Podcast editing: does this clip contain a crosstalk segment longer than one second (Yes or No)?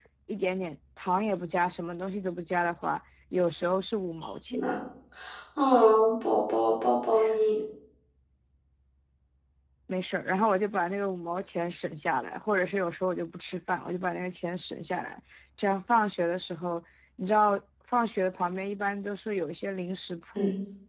No